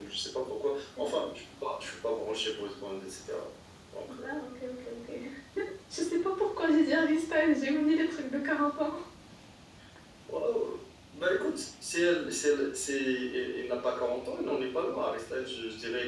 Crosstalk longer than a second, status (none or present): none